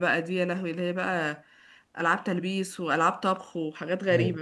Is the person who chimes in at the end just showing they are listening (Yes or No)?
No